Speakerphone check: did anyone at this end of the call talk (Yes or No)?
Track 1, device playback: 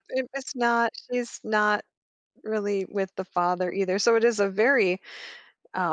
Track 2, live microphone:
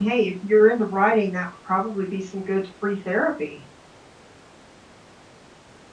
Yes